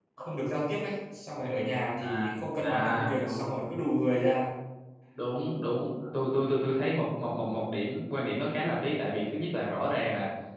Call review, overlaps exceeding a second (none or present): present